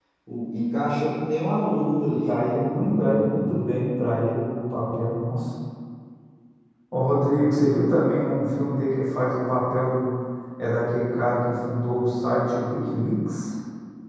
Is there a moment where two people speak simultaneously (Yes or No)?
Yes